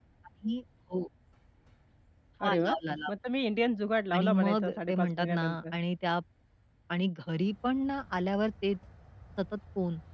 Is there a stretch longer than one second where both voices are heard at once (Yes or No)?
Yes